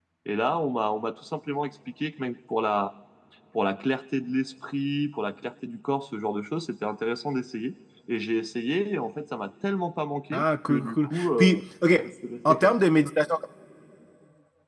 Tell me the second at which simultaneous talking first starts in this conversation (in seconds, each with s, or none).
10.3 s